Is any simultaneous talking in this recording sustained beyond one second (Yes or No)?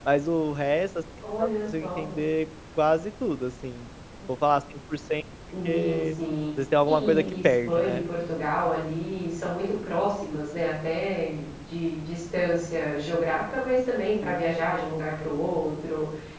Yes